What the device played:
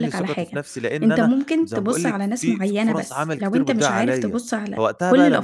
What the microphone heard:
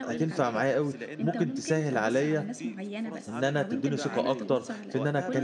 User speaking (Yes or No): Yes